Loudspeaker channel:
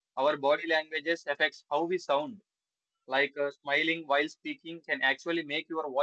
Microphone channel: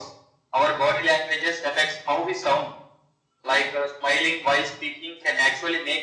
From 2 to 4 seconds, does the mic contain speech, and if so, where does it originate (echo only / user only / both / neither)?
echo only